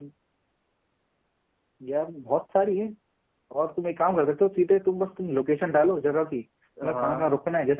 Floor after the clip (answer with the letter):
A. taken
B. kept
B